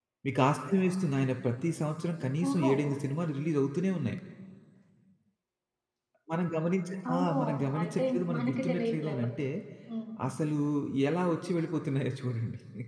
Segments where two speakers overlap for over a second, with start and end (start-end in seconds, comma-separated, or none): 7.1-9.3